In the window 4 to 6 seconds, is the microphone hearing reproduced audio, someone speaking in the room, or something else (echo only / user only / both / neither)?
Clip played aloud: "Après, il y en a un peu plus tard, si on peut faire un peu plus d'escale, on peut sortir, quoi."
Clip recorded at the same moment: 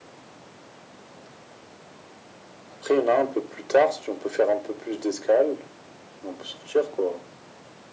echo only